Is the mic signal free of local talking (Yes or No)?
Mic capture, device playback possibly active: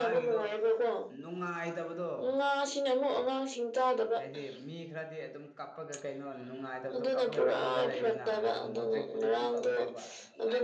No